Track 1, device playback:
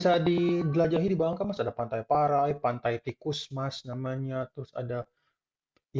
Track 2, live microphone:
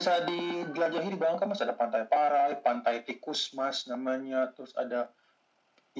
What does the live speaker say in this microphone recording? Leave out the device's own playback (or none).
none